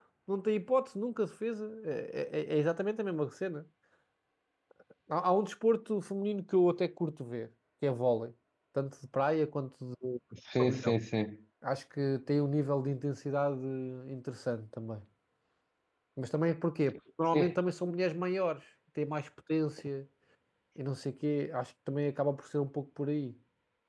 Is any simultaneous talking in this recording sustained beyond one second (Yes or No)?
No